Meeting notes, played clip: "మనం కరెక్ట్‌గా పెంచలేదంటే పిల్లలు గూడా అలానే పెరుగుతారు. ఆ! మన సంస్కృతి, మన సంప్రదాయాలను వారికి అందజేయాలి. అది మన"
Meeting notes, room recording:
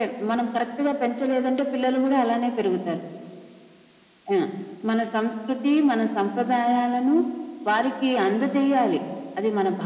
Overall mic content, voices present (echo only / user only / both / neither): echo only